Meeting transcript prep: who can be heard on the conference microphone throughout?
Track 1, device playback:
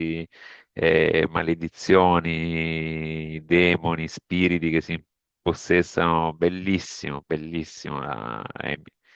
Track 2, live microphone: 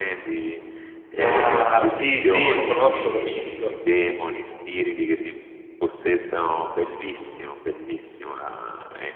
both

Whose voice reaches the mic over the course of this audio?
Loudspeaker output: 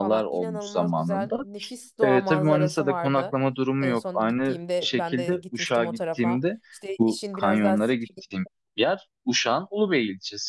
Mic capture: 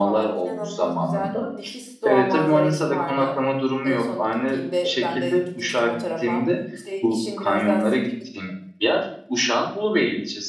echo only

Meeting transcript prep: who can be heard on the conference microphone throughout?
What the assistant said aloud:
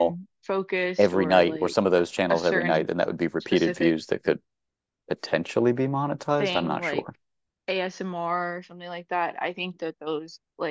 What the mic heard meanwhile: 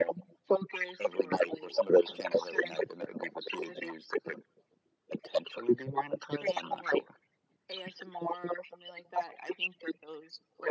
echo only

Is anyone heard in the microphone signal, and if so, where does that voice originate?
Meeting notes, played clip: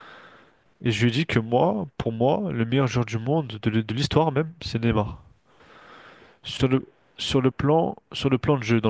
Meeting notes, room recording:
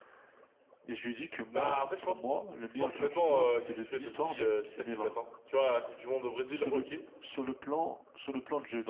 both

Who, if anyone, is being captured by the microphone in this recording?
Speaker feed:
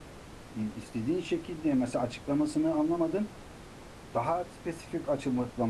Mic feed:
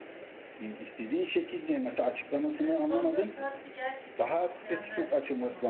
both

